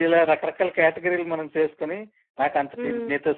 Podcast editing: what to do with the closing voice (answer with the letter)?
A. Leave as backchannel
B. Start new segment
A